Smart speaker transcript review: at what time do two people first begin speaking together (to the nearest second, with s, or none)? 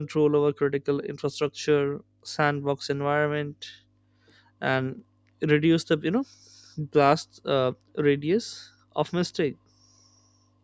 none